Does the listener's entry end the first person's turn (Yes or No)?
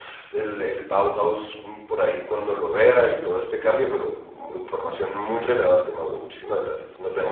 Yes